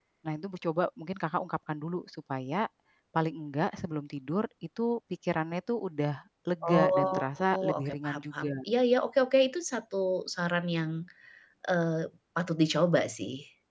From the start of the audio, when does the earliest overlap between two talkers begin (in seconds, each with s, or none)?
6.6 s